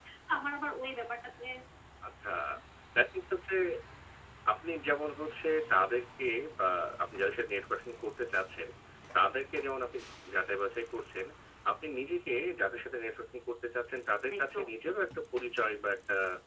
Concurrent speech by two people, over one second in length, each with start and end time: none

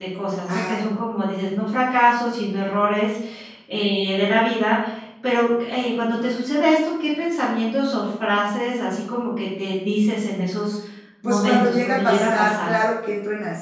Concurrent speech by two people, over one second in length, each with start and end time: 11.2-12.7

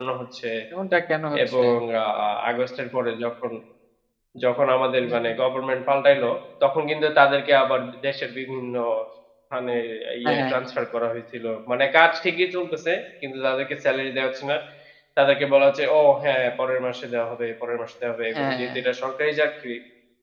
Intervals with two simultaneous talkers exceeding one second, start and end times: none

